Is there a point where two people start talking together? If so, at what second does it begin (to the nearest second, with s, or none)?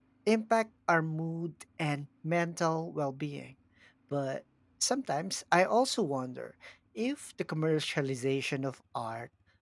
none